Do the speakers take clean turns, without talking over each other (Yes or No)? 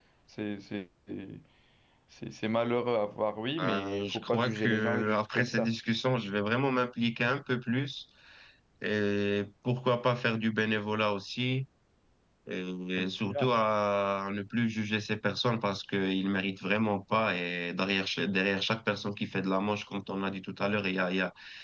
No